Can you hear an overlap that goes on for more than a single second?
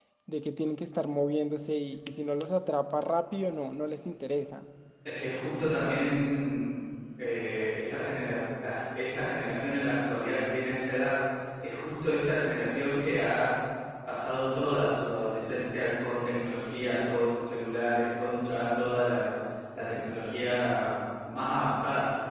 No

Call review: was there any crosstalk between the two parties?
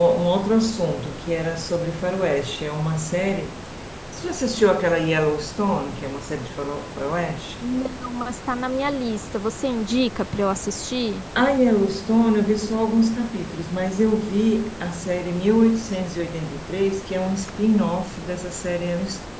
No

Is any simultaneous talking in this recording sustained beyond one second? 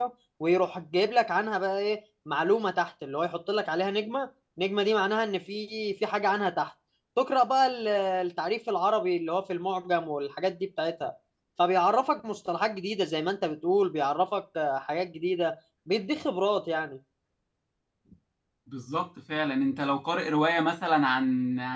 No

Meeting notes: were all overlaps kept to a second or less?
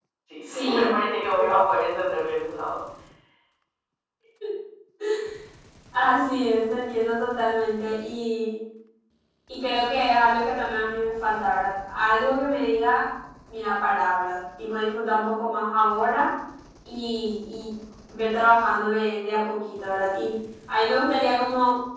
Yes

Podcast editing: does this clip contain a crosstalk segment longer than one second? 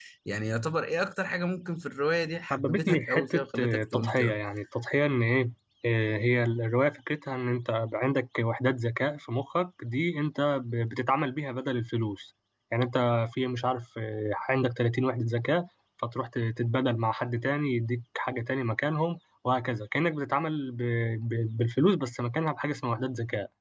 Yes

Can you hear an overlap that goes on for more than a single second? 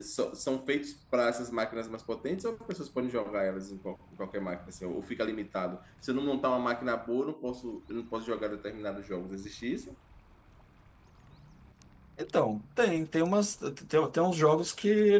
No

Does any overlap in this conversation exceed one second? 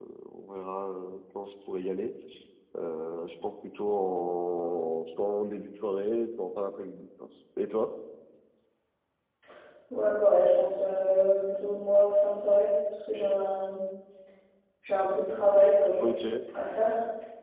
No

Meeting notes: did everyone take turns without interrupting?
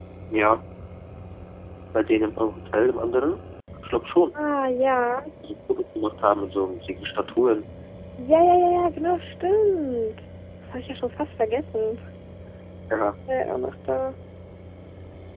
Yes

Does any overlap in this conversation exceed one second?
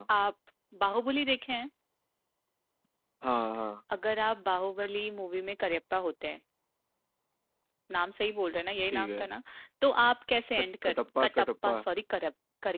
Yes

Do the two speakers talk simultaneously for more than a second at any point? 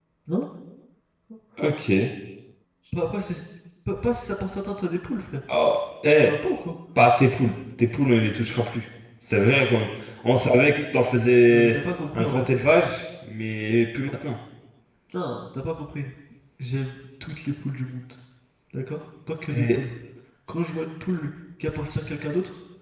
No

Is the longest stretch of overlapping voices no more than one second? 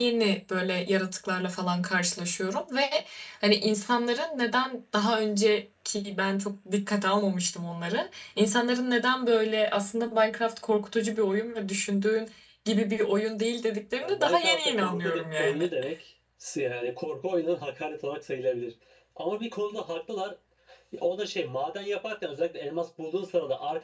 No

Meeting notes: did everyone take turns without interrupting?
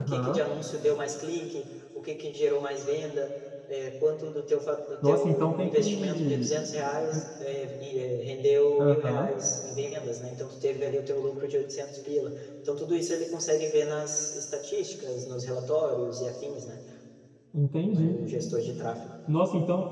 No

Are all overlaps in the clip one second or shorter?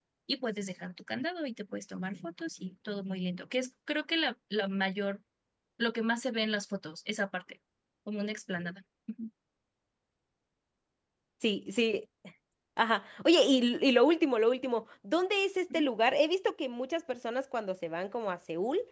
Yes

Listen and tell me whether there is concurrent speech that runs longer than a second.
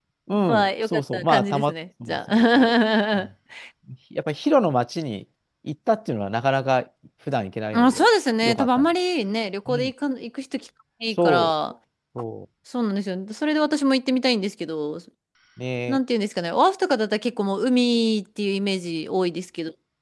Yes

